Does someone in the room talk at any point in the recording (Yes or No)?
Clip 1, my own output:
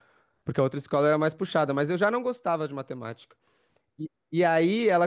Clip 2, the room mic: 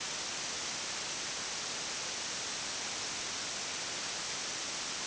No